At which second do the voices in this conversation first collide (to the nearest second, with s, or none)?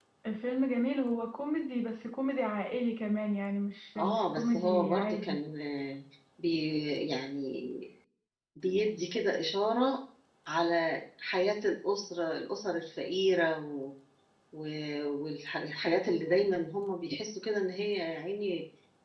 4 s